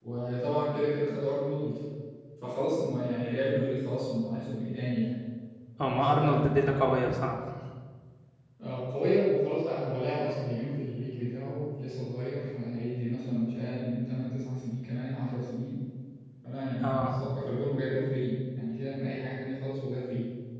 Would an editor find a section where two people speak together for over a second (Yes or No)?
No